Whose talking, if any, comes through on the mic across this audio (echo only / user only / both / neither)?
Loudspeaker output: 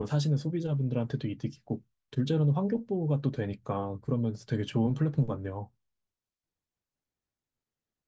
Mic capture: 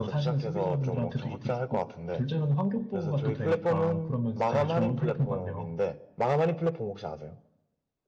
both